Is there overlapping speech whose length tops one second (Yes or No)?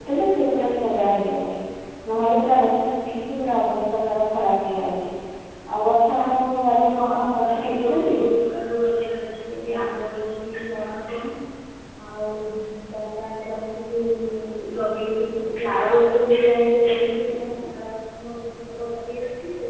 Yes